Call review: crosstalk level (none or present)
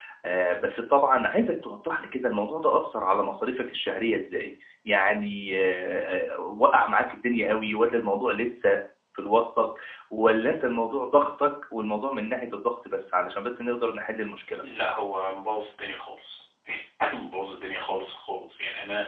none